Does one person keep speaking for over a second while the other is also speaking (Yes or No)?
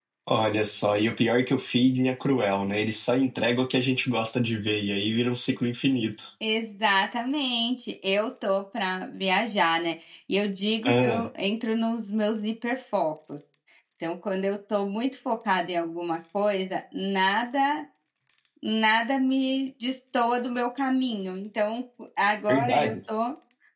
No